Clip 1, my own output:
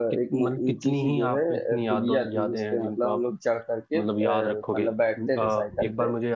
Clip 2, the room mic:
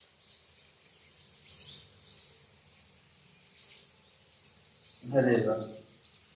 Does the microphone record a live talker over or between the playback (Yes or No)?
Yes